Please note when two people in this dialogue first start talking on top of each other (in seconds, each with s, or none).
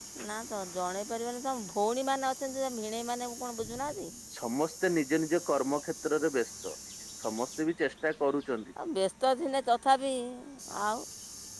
none